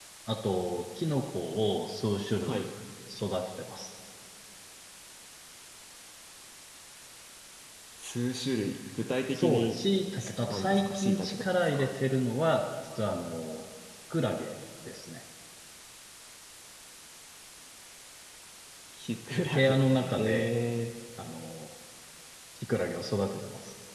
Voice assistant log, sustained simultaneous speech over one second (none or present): present